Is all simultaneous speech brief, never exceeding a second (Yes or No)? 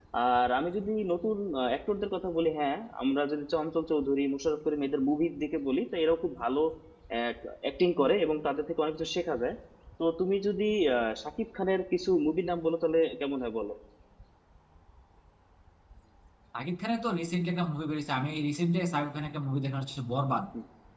Yes